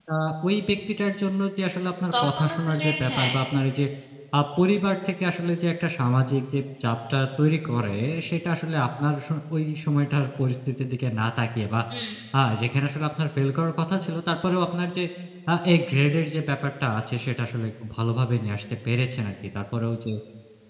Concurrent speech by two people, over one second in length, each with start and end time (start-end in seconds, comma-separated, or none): 2.1-3.3